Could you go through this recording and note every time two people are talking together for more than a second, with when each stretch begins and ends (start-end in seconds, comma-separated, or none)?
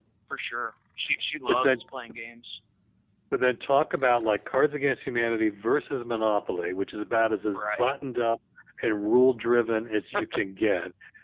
none